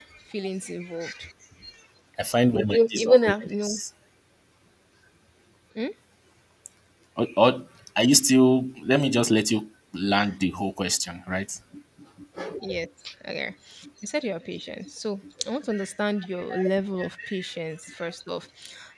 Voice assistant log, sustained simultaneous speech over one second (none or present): present